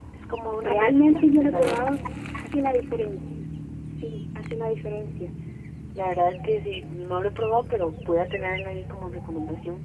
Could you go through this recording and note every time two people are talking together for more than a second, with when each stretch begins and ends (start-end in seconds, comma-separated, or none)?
0.6-1.9